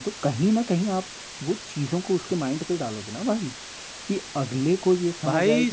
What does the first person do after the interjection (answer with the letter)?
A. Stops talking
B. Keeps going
A